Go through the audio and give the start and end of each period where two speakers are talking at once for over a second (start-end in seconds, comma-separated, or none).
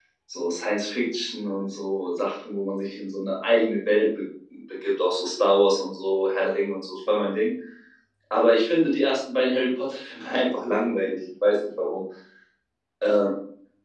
none